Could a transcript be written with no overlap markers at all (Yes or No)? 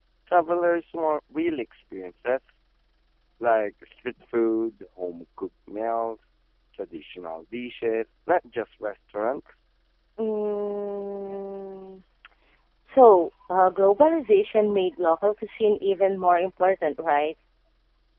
Yes